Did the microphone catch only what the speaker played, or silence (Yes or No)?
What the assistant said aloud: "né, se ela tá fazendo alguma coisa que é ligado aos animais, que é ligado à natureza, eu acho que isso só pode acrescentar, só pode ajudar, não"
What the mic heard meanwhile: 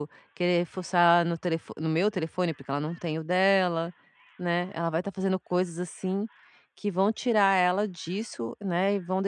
No